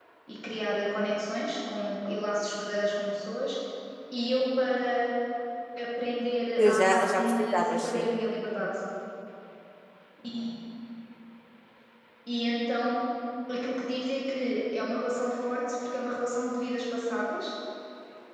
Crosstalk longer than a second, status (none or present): present